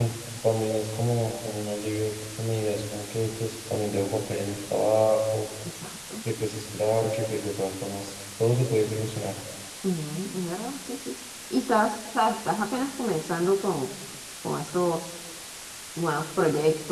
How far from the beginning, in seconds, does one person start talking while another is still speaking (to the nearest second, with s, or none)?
none